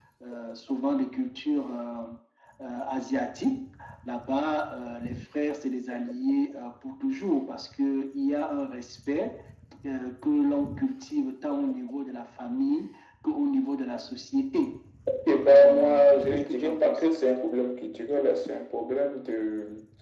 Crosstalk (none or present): present